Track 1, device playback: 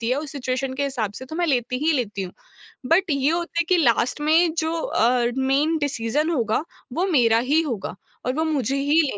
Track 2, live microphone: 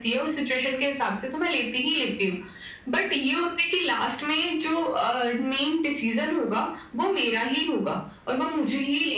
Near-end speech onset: none

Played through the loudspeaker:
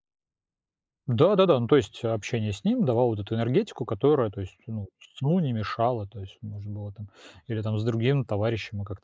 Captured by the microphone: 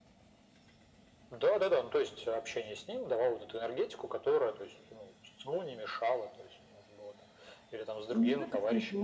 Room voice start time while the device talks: 8.1 s

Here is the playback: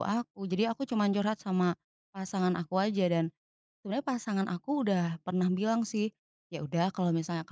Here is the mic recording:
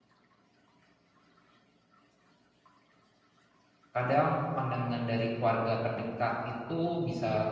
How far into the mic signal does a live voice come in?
4.0 s

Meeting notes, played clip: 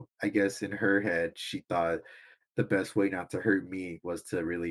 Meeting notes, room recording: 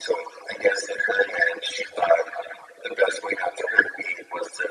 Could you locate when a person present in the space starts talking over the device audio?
none

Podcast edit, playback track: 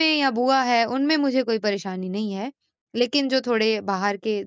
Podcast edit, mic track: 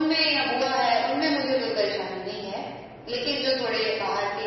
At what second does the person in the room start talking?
none

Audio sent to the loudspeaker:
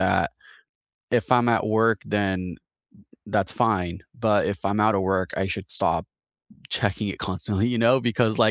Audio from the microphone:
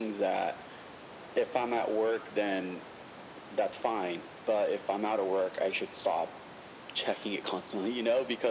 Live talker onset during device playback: none

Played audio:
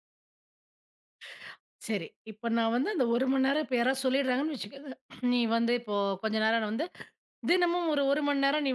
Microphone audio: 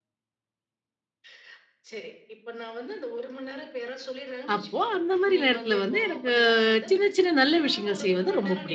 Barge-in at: 4.6 s

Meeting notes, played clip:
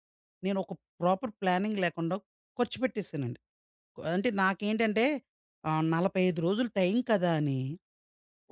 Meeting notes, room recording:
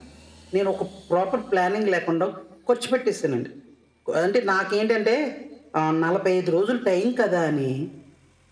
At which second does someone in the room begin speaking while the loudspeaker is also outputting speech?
none

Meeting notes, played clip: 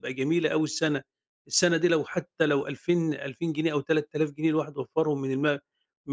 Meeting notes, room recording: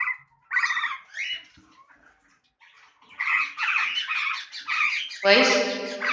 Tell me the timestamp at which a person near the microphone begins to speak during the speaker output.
5.2 s

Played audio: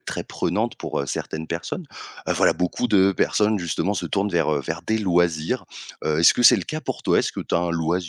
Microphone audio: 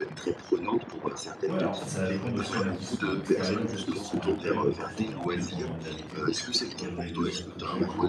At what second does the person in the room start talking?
1.4 s

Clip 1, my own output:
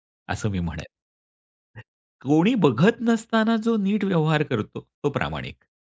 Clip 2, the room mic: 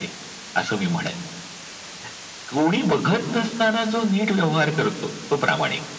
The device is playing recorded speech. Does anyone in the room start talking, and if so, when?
none

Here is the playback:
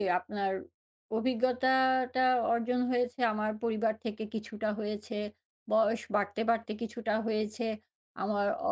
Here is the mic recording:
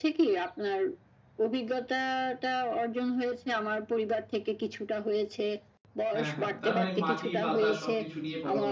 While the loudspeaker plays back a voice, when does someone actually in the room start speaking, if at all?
6.1 s

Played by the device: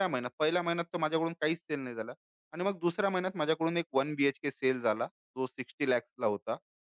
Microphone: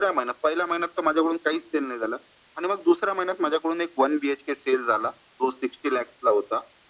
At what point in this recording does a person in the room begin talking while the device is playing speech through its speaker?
none

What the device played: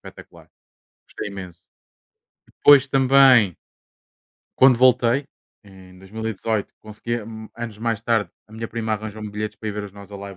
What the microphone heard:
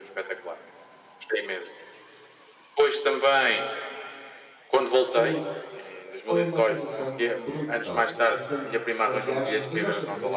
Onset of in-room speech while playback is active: 5.1 s

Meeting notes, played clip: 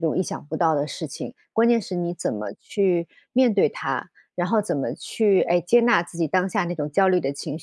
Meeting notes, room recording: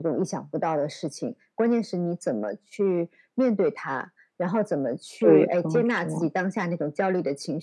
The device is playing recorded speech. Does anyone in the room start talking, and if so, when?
5.2 s

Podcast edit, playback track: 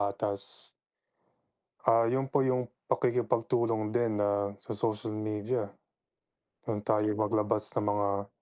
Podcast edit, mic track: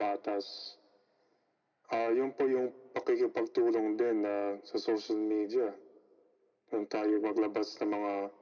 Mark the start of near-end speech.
none

